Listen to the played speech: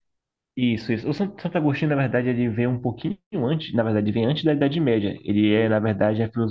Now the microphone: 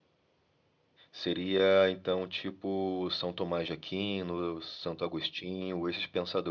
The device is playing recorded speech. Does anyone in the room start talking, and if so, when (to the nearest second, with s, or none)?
1 s